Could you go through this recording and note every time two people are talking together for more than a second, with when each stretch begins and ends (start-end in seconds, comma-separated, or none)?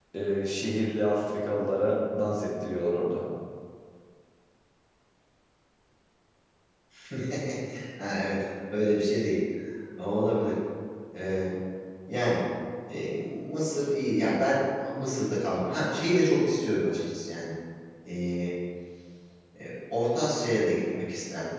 none